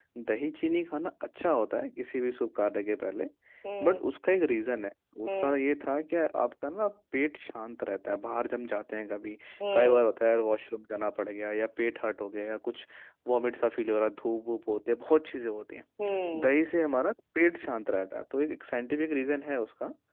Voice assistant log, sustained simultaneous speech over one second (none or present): none